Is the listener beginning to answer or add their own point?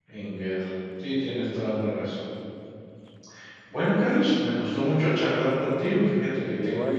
No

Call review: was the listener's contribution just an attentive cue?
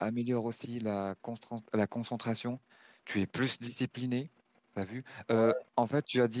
Yes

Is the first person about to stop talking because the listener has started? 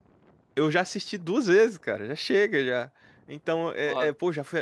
No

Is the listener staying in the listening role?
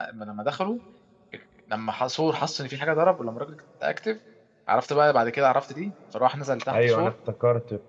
No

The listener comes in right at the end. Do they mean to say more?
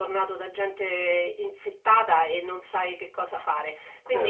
No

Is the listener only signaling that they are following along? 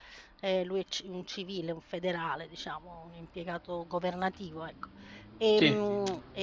Yes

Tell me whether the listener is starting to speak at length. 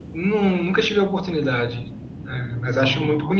No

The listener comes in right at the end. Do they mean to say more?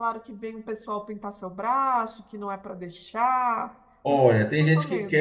Yes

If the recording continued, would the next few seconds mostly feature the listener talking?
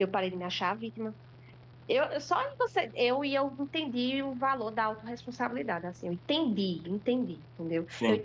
No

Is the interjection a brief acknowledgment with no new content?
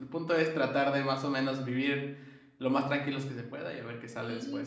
No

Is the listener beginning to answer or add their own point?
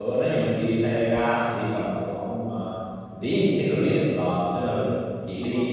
No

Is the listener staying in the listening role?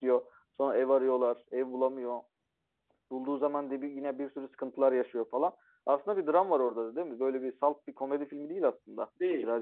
No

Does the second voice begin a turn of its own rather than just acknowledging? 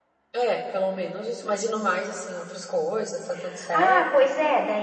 Yes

